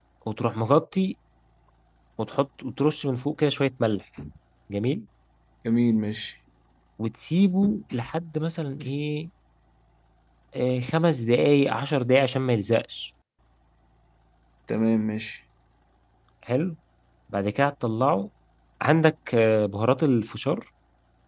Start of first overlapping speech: none

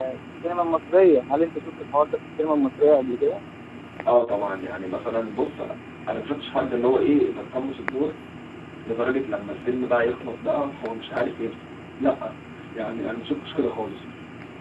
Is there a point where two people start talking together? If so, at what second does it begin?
none

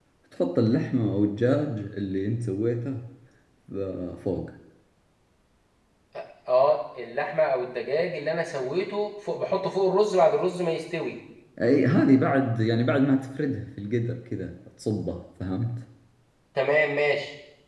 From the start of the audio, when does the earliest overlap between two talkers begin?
none

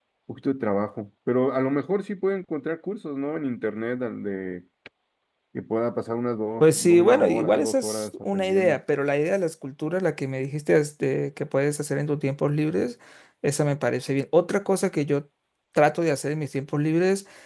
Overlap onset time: 6.6 s

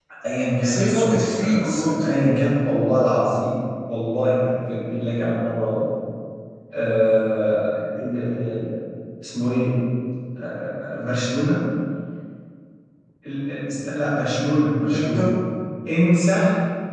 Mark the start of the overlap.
0.6 s

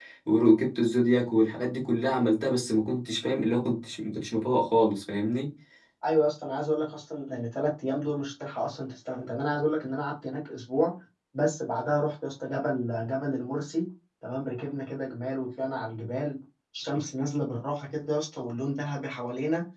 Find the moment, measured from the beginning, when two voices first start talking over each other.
none

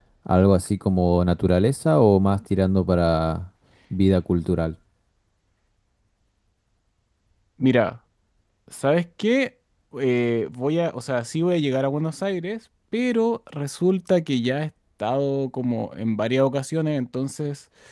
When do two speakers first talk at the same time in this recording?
none

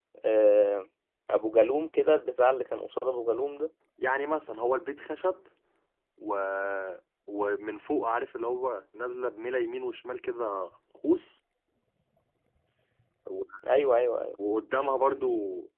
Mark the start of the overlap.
none

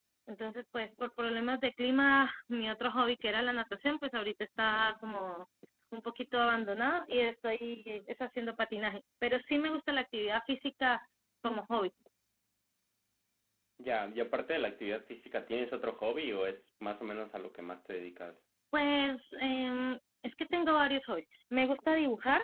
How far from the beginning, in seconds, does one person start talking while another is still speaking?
none

